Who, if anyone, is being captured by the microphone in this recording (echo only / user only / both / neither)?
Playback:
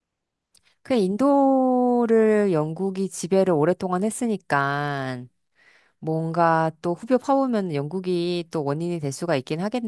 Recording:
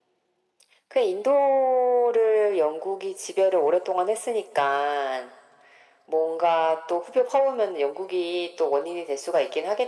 echo only